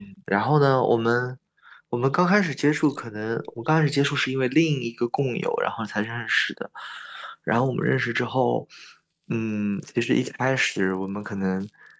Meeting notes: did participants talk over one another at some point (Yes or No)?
No